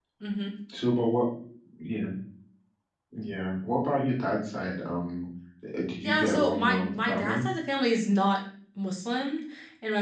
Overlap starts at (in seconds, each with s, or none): 6.0 s